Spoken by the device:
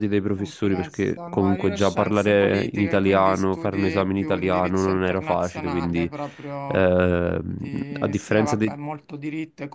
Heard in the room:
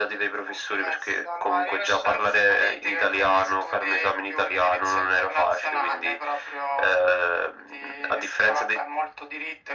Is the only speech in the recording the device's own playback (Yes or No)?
Yes